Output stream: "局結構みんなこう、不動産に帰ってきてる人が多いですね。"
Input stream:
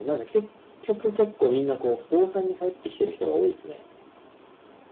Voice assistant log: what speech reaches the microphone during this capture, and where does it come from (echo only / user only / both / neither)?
echo only